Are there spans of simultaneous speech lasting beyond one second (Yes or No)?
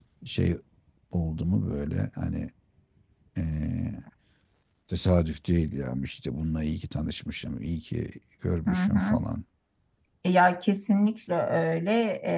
No